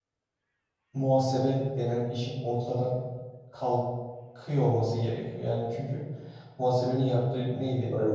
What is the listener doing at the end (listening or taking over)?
listening